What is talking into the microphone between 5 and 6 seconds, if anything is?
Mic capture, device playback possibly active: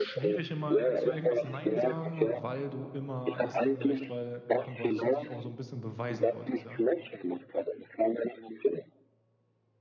both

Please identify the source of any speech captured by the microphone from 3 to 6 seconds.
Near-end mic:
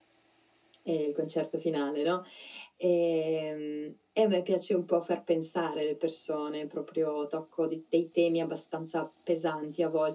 user only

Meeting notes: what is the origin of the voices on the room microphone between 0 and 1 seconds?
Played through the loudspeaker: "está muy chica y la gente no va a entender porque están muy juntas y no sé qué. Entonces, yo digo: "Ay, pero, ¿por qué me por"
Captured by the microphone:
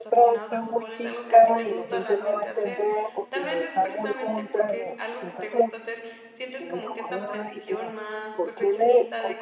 both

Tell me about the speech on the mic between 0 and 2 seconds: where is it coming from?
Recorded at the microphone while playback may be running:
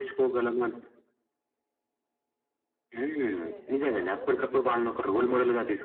echo only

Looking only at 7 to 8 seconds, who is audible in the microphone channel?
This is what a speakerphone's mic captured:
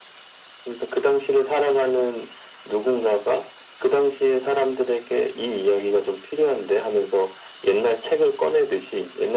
echo only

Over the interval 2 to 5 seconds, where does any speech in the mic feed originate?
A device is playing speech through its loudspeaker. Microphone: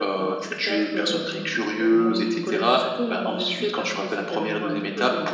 echo only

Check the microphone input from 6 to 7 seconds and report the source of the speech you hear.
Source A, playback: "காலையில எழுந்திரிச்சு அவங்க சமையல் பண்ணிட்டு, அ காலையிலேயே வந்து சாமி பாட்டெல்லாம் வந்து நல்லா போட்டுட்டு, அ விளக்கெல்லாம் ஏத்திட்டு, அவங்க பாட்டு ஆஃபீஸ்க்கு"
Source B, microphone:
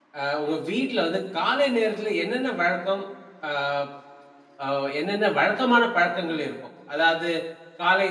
user only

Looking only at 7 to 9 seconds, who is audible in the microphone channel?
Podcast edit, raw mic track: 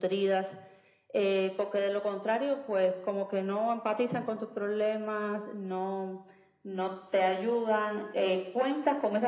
echo only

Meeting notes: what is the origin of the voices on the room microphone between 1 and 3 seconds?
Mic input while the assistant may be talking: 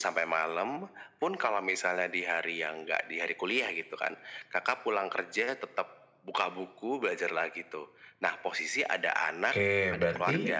echo only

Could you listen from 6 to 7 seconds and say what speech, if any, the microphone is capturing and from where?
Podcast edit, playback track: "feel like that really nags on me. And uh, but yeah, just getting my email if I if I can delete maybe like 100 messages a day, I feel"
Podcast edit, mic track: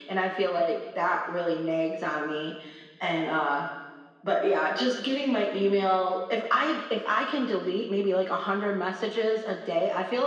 echo only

